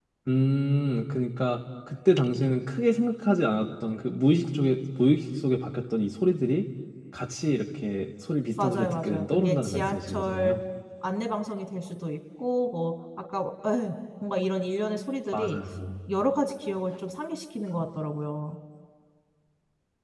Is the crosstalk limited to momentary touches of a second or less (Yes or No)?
No